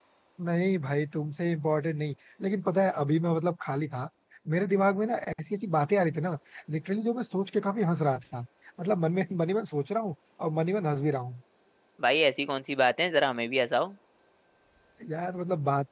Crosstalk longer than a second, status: none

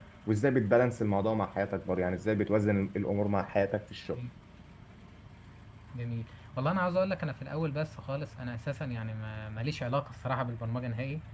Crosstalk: none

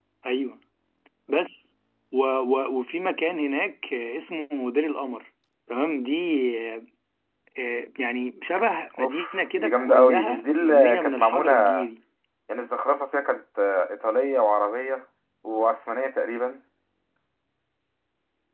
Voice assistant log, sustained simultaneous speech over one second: present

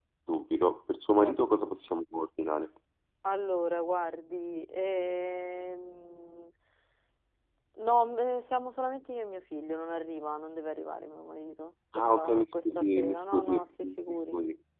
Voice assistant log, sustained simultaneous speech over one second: present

